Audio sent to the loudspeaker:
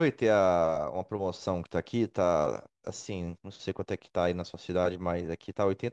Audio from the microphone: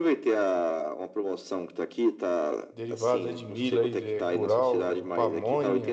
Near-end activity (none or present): present